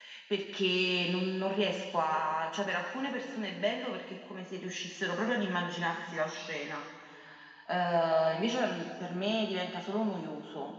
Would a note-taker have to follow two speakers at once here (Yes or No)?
No